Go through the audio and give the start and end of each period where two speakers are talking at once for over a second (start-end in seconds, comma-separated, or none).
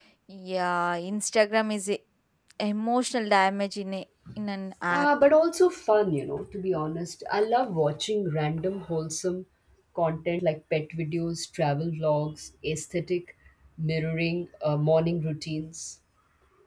none